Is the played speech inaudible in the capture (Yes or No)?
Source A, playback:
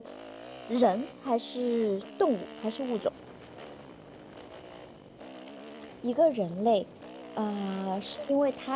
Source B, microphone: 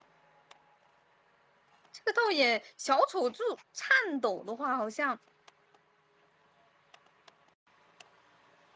Yes